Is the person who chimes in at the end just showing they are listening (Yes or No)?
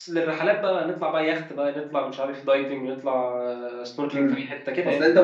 No